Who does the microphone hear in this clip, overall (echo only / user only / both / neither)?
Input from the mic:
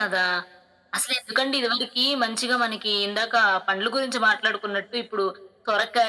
echo only